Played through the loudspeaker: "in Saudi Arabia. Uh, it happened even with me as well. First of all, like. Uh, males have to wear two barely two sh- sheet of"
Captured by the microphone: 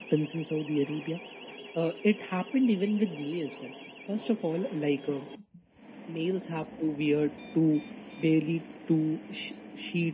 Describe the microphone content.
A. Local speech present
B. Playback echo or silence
B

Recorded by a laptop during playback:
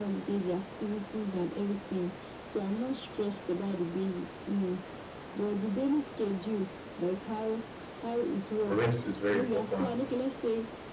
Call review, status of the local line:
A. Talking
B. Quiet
A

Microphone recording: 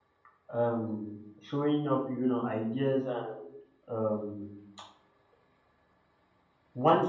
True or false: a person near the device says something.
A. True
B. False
A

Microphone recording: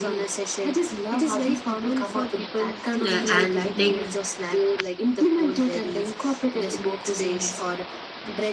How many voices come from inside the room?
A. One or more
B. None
A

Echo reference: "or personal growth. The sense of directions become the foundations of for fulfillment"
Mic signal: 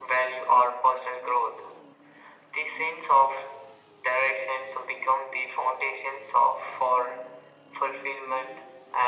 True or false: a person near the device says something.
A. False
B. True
A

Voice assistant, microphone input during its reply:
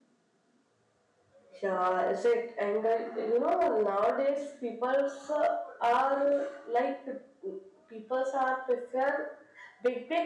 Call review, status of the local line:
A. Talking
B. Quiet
B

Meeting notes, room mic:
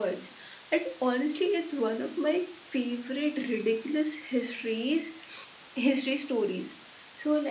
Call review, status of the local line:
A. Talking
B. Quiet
B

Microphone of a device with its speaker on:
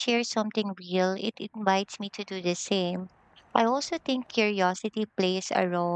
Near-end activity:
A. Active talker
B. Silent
A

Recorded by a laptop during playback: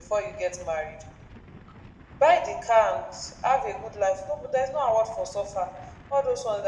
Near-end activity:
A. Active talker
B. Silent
B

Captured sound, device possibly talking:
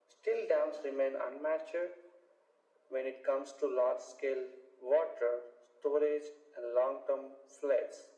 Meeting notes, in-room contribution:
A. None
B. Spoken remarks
A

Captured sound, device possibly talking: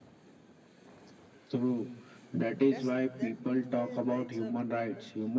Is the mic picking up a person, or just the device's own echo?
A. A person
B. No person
A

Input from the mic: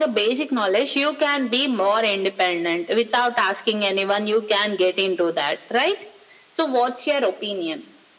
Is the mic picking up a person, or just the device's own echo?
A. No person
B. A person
A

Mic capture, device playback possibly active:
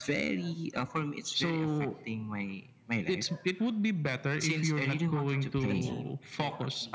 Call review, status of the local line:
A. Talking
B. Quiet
A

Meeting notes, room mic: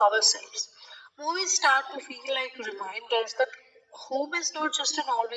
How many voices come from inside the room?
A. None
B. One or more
A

